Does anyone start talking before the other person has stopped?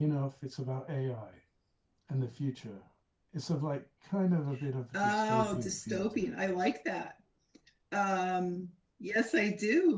Yes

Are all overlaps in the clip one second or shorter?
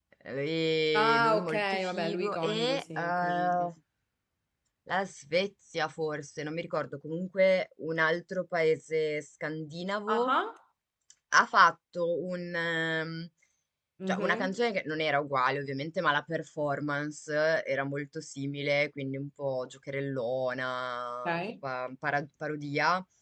No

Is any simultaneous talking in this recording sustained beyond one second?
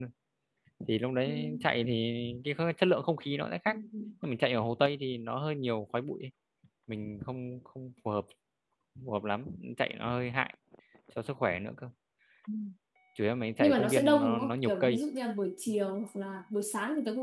Yes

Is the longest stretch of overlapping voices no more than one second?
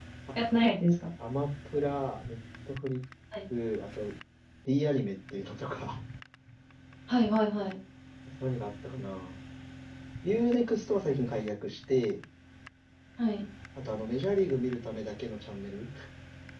Yes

